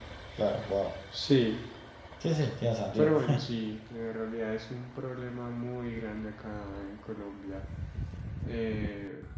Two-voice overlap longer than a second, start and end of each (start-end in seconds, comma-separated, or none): none